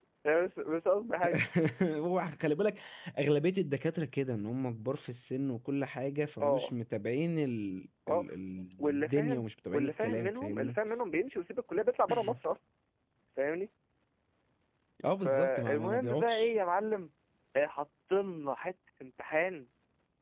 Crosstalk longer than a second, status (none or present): present